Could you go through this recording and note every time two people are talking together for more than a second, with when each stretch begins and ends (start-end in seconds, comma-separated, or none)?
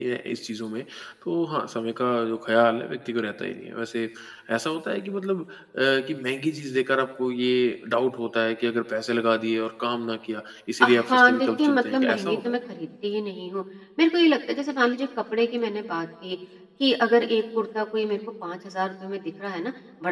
10.8-12.5